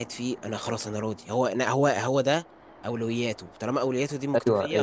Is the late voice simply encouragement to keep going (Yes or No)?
No